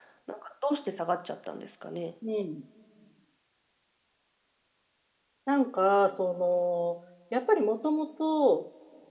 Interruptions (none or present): none